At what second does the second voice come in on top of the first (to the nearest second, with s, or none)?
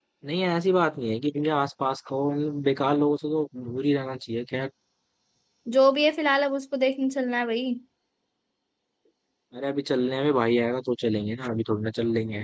none